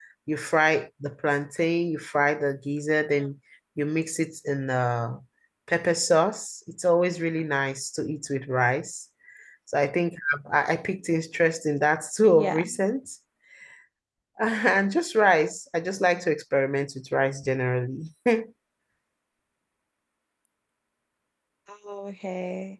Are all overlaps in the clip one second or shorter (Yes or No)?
Yes